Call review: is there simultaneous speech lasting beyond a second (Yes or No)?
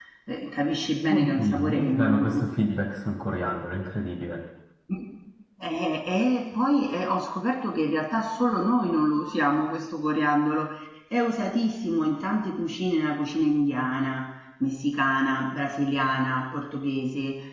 Yes